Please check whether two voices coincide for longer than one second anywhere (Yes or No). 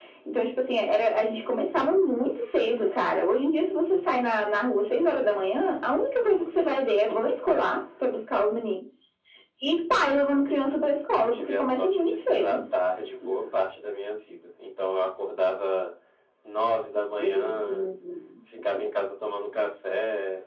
Yes